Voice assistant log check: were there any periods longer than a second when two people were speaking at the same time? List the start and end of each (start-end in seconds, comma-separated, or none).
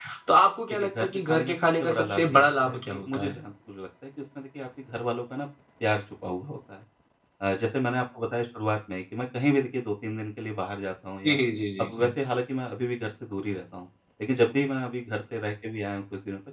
0.7-3.3